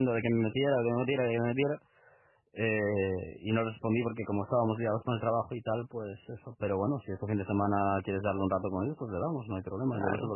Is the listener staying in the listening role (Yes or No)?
No